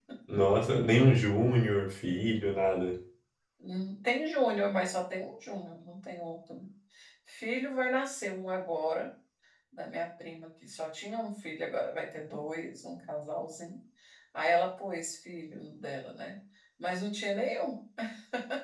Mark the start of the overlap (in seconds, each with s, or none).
none